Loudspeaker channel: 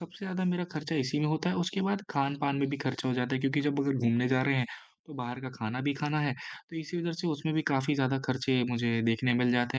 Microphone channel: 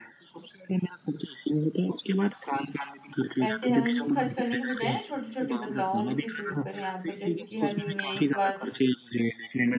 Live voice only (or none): पैसे हैं उनको खर्च करने के बजाय ना छोटे-छोटे बदलावों से शुरू करें आप। जैसे कि हर महीने एक बार